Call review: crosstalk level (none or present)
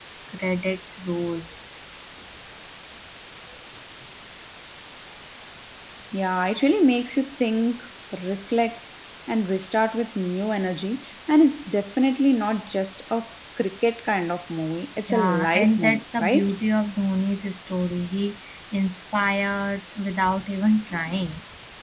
present